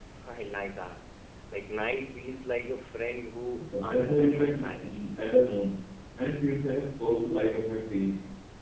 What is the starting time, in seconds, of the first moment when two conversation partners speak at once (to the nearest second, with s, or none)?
4 s